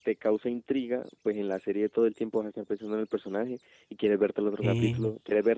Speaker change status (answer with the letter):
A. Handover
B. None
B